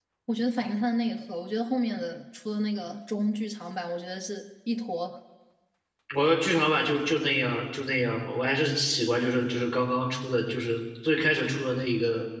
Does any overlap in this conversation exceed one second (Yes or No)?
No